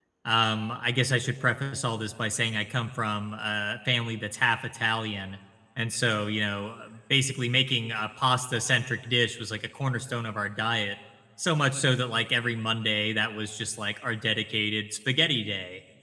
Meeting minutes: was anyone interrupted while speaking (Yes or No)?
No